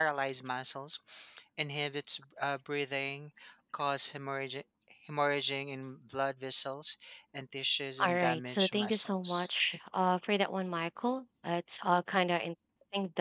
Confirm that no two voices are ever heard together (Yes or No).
No